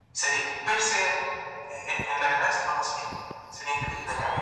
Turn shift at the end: Yes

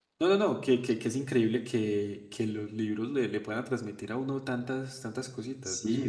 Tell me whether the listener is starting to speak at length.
Yes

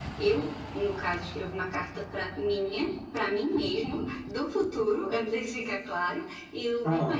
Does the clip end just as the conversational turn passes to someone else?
No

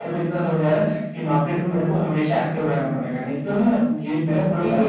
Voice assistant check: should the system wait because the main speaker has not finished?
No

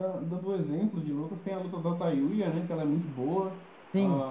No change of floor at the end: No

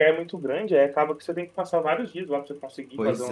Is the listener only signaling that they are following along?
No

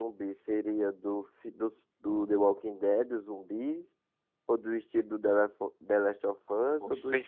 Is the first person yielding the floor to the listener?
No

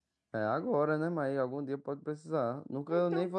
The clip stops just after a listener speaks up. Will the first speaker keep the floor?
No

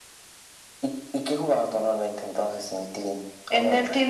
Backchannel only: No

